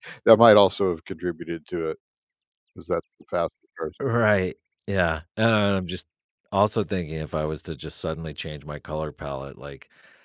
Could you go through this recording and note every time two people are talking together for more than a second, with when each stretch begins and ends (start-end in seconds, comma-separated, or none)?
none